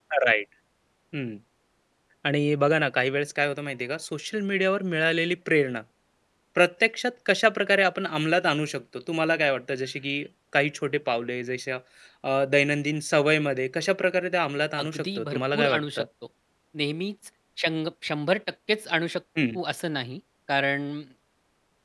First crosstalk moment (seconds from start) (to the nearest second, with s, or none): 15 s